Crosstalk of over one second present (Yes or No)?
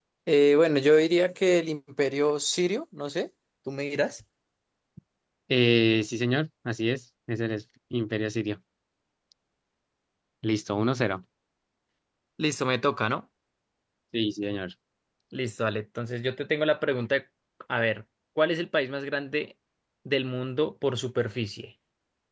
No